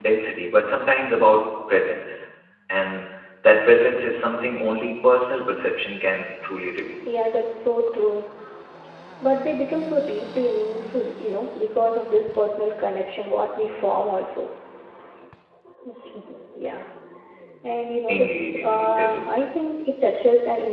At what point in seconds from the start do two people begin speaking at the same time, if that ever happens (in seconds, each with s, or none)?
18.1 s